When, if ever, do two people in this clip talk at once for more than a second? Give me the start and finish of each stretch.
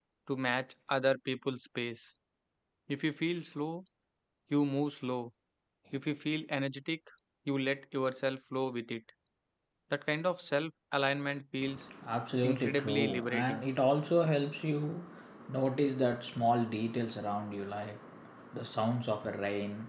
12.4-13.6

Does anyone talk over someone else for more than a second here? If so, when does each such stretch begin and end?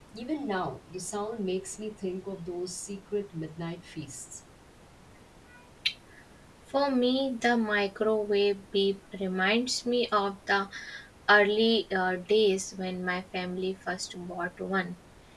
none

